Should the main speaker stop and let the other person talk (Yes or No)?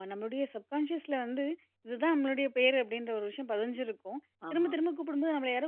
No